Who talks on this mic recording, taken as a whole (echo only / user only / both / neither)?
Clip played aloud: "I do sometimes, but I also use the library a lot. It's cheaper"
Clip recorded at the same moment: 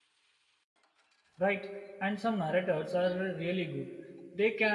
user only